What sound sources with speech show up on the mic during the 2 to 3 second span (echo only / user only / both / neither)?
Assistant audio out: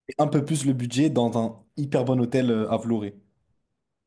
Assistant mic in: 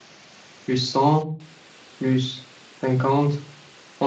user only